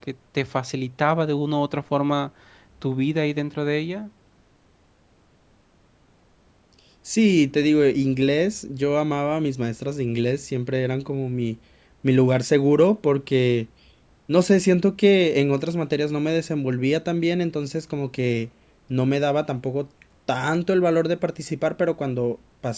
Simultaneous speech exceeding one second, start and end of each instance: none

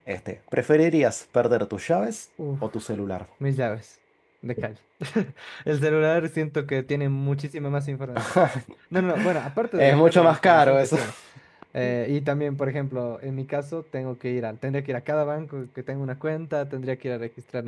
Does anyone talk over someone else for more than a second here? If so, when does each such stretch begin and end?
9.8-11.0

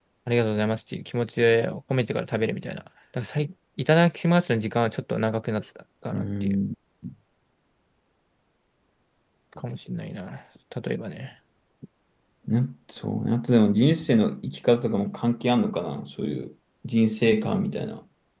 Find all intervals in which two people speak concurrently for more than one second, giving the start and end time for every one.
none

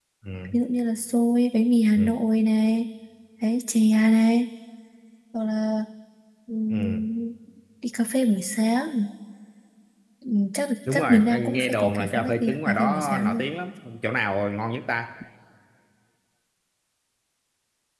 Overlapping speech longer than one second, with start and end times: 10.9-13.4

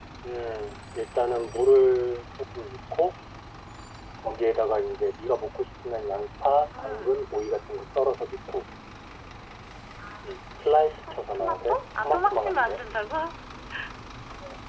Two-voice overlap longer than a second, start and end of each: 11.1-12.8

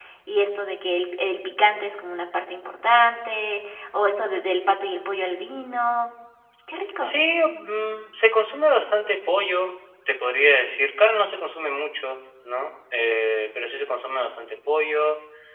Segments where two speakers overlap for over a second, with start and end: none

